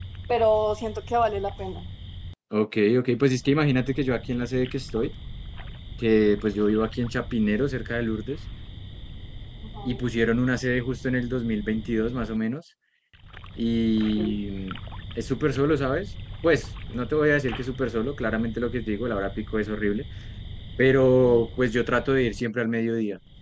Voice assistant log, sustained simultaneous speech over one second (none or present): none